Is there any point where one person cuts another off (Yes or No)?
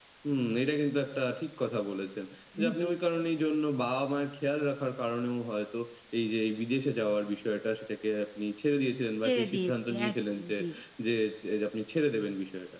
Yes